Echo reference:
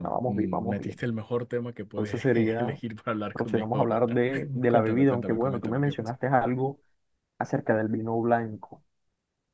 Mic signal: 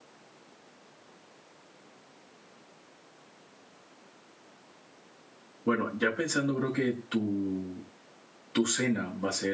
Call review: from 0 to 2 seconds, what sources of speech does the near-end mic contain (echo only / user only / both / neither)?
neither